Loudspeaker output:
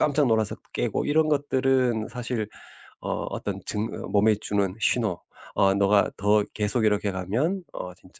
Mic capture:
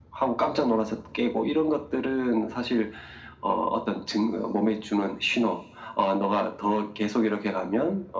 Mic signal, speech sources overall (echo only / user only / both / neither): echo only